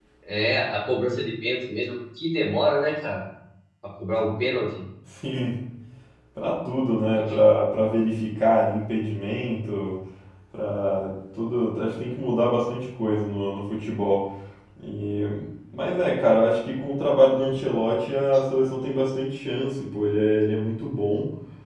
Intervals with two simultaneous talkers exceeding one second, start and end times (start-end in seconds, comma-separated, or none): none